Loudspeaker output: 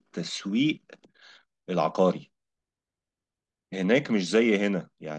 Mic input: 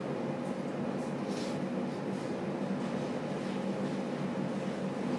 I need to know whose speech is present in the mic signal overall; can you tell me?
neither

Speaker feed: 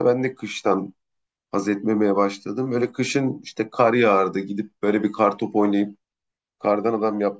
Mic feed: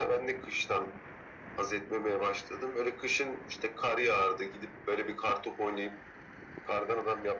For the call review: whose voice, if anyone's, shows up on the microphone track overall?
echo only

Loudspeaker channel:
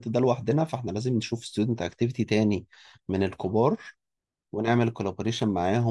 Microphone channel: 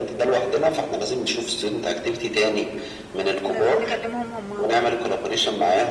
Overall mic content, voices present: both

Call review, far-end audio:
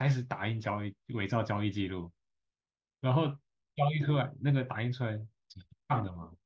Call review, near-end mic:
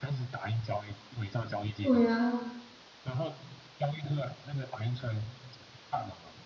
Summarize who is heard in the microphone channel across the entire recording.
both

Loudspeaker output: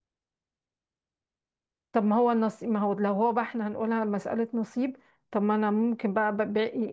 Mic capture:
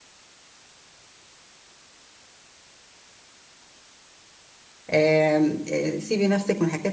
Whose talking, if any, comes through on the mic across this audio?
user only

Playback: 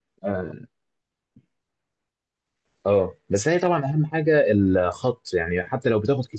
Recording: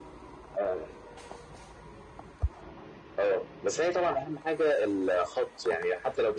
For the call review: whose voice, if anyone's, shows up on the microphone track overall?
echo only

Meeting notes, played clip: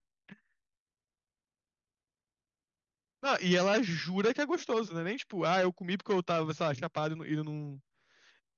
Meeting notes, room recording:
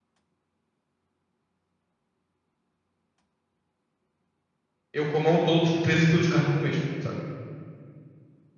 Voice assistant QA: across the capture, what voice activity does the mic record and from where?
user only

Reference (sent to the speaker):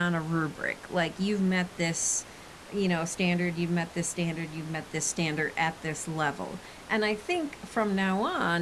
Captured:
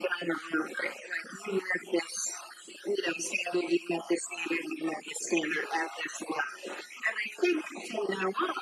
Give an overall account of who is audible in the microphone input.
echo only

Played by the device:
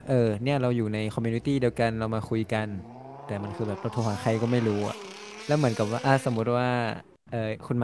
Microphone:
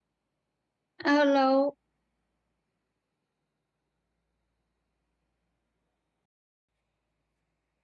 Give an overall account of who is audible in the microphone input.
user only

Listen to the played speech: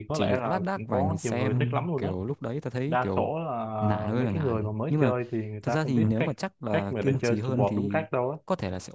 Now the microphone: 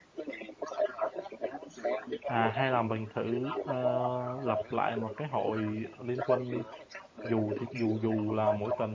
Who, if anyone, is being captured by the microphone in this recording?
both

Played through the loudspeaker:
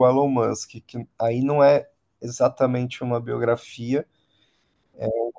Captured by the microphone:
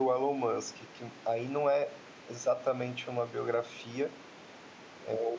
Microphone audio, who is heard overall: echo only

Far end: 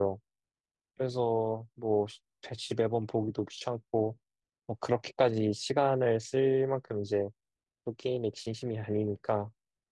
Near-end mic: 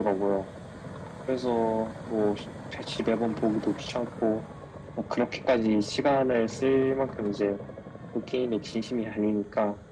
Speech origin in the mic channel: echo only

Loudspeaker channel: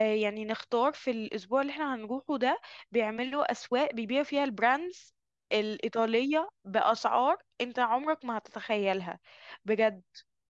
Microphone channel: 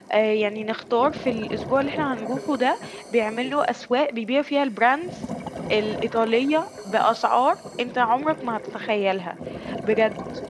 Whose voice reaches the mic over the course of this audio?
echo only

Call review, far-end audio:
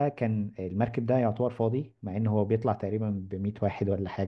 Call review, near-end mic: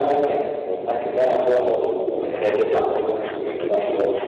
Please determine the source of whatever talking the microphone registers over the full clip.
both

